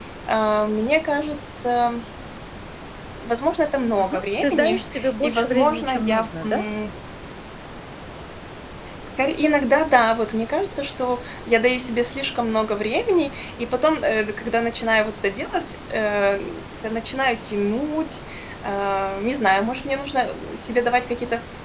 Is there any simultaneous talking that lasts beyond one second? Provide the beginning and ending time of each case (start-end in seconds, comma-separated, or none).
4.0-6.7